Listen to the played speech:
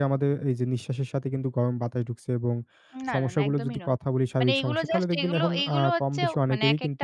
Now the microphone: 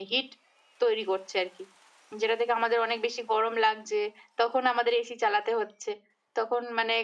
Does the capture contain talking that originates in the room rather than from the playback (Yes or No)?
Yes